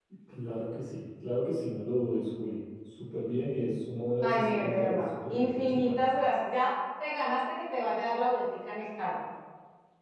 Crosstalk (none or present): present